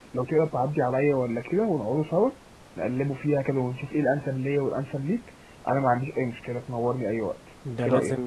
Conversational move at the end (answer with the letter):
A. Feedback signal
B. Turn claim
B